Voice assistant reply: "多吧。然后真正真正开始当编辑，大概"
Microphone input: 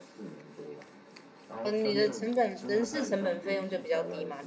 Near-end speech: present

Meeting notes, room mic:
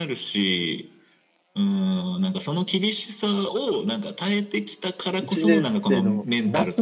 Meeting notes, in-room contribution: present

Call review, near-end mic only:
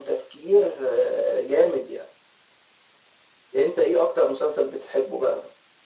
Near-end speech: none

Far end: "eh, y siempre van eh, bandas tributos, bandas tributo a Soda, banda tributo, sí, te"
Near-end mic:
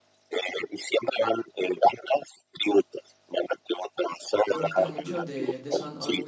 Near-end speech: present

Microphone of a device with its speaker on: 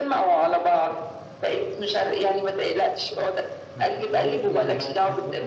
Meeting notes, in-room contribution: present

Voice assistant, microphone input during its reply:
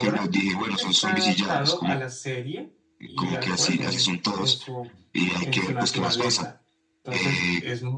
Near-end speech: present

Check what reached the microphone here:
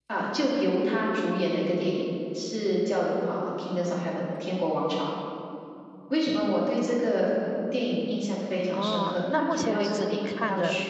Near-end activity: present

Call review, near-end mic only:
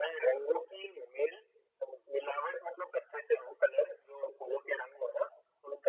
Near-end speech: none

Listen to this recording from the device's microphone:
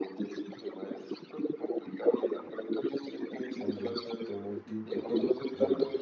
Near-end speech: present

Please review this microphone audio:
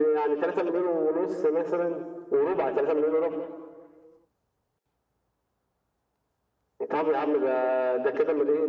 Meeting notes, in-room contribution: none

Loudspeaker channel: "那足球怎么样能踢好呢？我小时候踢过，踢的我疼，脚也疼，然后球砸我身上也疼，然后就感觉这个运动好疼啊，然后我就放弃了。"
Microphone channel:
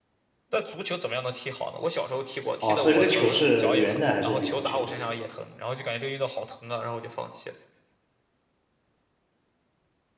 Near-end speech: present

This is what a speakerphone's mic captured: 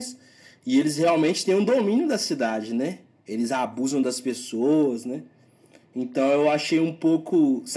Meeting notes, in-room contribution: none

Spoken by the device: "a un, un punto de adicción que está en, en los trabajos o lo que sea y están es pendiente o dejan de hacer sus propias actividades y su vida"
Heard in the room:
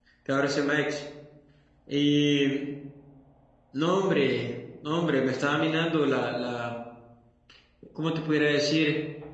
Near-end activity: present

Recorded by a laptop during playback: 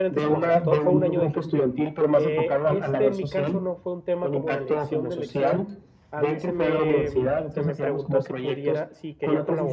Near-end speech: present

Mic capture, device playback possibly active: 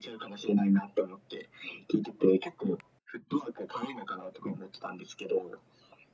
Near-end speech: none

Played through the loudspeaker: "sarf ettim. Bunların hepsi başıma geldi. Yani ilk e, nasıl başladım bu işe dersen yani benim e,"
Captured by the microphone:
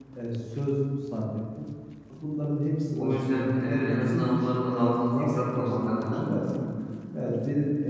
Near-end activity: present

